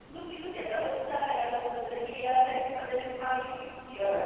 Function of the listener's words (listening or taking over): taking over